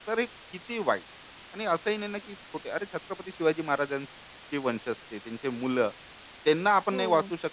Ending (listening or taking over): listening